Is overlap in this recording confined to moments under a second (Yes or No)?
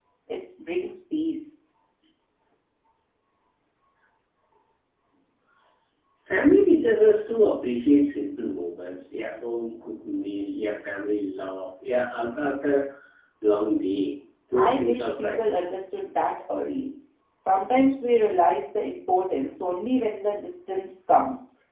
No